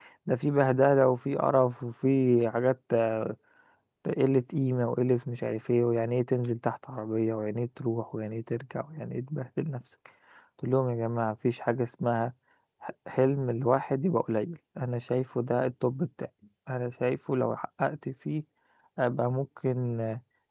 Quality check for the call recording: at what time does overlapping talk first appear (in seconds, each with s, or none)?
none